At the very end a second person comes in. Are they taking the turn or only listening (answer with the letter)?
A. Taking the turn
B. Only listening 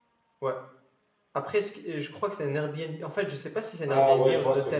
A